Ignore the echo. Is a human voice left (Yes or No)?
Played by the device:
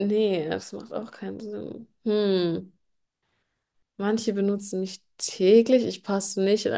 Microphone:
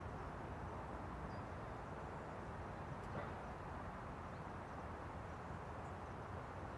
No